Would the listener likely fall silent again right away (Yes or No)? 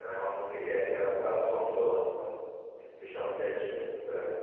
Yes